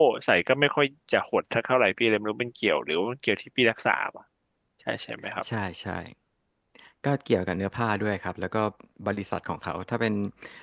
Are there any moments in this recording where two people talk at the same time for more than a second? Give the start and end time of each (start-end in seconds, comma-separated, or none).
none